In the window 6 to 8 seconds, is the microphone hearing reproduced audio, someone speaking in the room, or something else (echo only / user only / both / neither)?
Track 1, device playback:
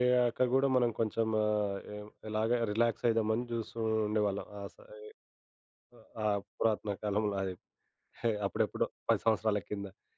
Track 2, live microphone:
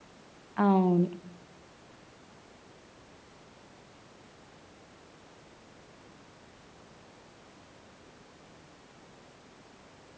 neither